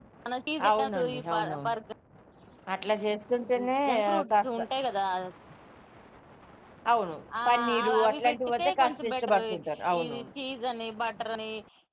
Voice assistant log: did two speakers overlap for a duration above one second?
Yes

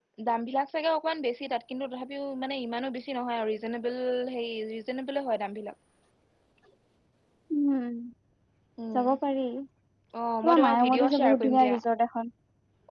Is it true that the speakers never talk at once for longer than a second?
No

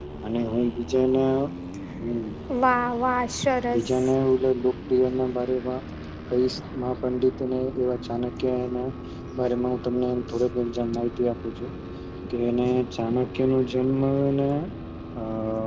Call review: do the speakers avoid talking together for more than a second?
Yes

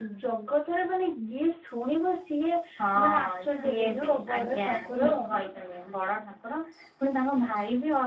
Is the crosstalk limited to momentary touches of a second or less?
No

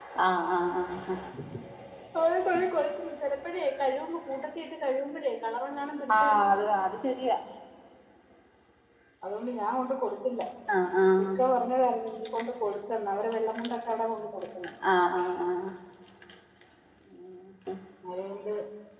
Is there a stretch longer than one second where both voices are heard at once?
No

